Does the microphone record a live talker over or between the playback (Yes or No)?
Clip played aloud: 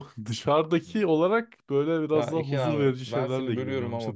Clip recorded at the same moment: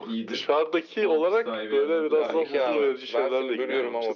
Yes